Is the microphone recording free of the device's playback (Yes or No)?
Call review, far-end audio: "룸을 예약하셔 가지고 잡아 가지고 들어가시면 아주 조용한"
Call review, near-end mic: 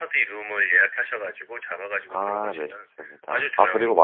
No